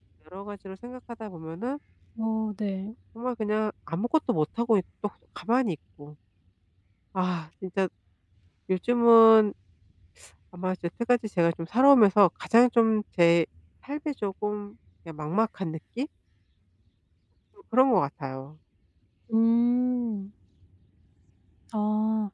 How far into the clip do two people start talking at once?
none

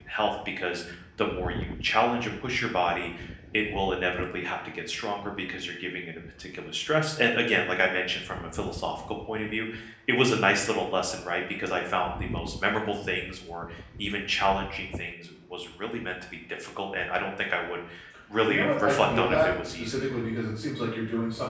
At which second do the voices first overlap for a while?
18.4 s

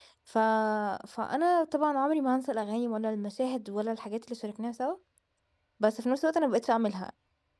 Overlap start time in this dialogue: none

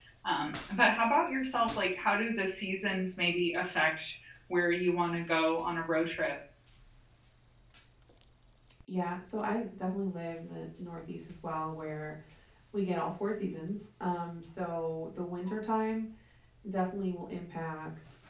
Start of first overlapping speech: none

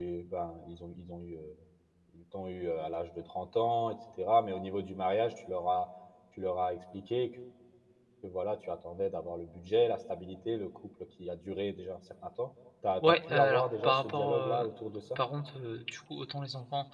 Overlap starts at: 13.0 s

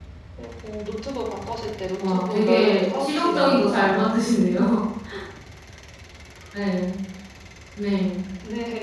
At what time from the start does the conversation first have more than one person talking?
2.0 s

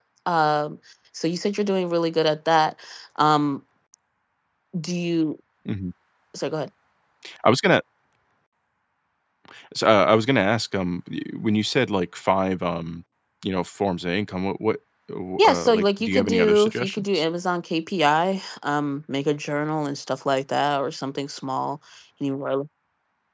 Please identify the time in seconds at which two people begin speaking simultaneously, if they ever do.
15.4 s

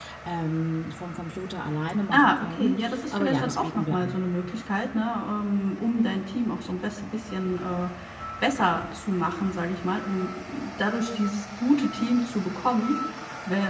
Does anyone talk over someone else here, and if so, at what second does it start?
2.1 s

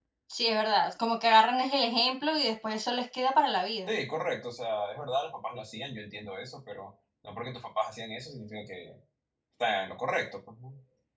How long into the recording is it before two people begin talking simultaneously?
none

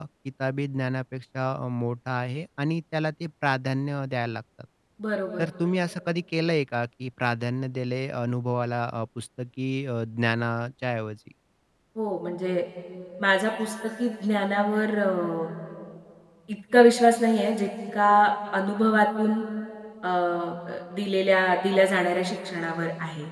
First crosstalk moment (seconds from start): none

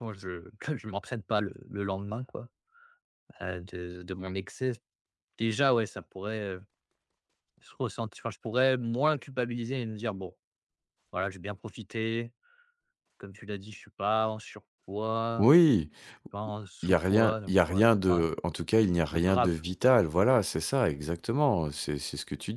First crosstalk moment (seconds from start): 16.8 s

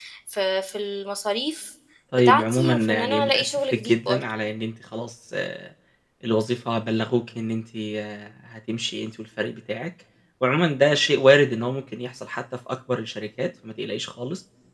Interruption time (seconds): 2.2 s

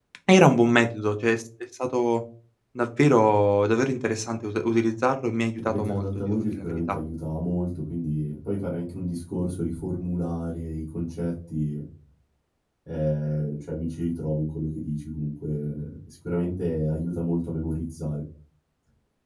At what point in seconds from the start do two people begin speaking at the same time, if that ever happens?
5.6 s

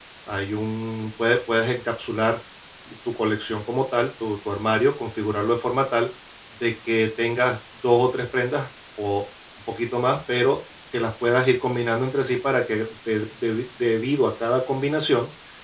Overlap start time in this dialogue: none

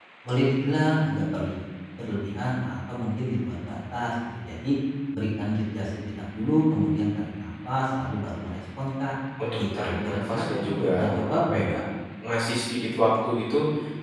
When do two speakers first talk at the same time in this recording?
9.6 s

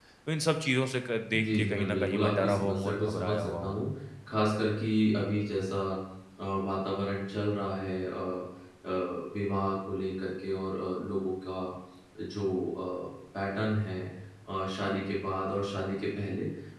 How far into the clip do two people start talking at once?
1.3 s

